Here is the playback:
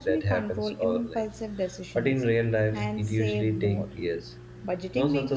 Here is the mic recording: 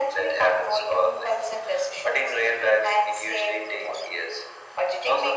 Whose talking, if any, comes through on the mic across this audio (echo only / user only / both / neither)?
echo only